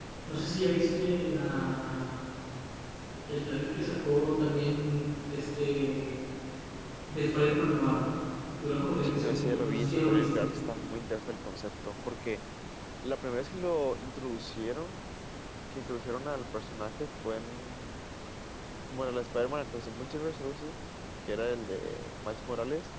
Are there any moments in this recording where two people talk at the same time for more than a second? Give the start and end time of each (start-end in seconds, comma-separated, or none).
9.0-10.5